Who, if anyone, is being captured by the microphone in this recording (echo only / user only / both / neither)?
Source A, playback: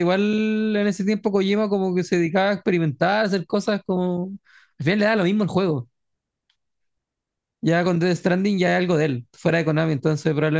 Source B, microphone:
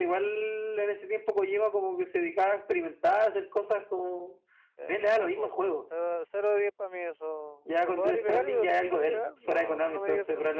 both